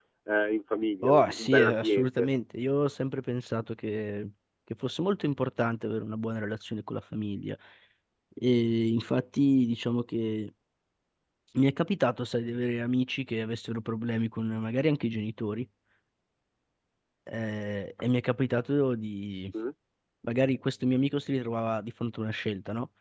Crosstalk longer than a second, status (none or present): present